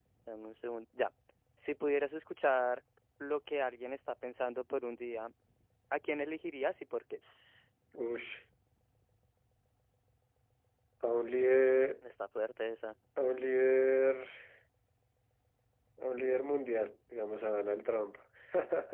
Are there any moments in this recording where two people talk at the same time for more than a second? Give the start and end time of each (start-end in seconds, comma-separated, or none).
none